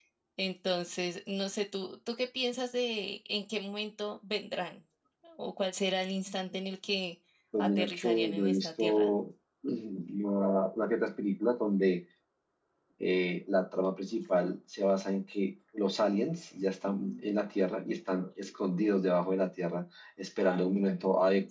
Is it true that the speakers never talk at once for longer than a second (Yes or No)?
No